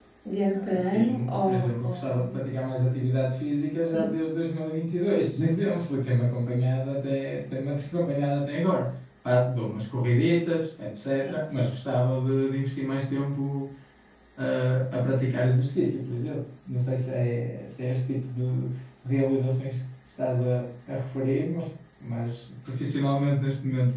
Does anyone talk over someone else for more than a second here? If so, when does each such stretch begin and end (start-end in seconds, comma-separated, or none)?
0.5-2.4